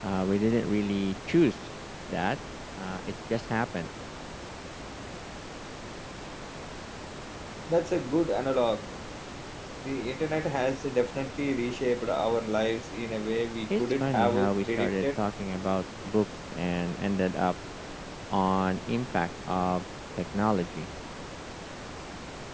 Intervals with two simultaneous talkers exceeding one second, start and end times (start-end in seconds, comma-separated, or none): 13.7-15.2